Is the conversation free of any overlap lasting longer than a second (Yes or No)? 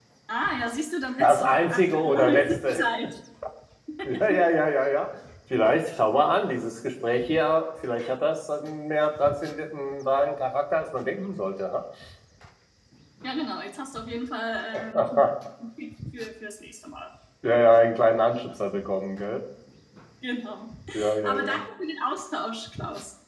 No